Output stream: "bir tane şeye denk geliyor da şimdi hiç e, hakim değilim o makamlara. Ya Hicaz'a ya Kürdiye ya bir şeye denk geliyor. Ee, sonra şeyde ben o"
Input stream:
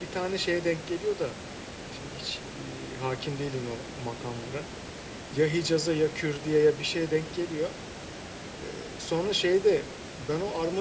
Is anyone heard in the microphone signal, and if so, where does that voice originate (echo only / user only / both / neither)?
echo only